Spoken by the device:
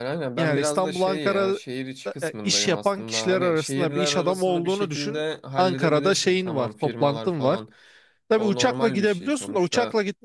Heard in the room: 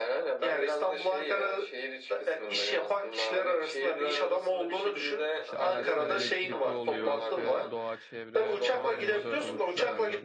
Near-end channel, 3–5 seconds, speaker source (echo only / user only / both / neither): echo only